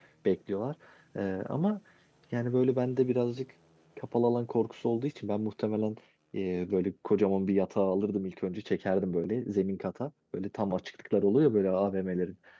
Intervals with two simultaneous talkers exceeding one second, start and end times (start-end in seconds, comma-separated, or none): none